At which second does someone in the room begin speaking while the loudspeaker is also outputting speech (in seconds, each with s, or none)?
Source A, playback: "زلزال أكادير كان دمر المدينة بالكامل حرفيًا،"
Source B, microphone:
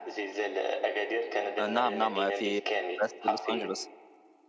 1.6 s